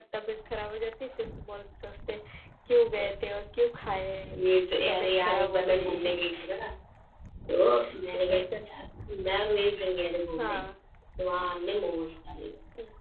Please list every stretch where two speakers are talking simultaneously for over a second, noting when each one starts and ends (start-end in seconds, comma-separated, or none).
4.9-6.1